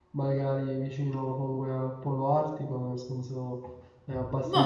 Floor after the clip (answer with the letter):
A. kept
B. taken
B